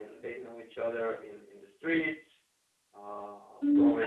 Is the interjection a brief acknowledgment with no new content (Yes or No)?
No